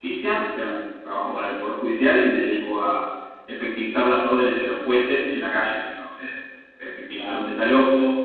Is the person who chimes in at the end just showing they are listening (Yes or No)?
Yes